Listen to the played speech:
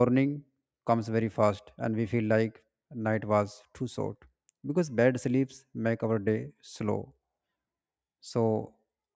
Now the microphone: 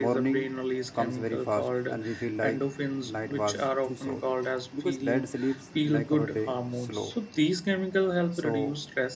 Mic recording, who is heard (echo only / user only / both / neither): both